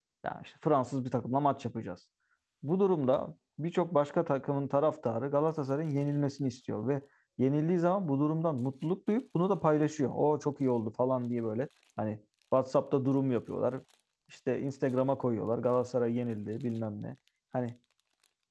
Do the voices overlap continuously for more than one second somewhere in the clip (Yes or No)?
No